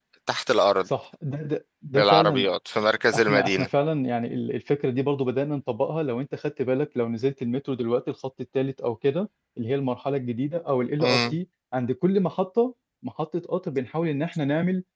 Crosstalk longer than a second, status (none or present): none